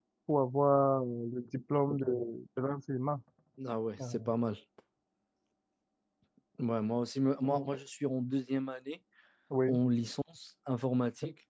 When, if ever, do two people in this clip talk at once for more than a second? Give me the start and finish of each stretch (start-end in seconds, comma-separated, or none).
none